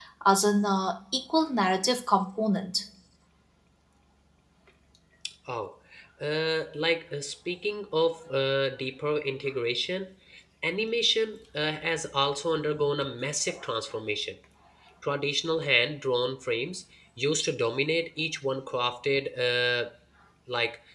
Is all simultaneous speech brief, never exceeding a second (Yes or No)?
Yes